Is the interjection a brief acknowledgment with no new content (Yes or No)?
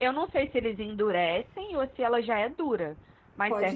No